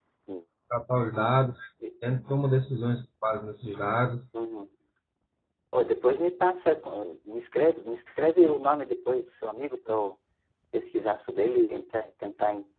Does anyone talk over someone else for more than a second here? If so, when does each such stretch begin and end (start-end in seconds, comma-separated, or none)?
none